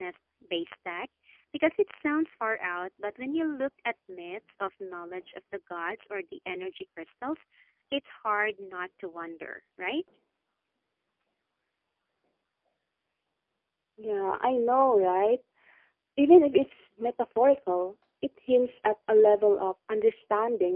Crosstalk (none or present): none